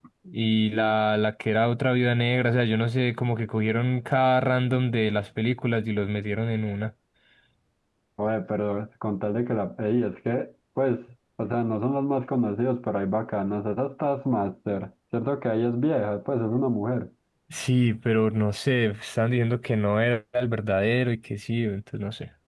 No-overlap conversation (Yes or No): Yes